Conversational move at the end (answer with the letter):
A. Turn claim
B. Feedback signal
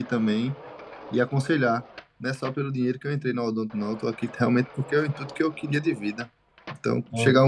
B